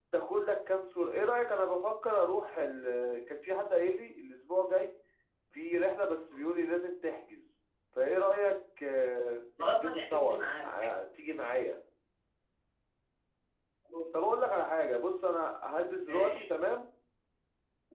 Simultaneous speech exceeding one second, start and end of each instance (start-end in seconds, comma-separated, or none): 9.6-10.9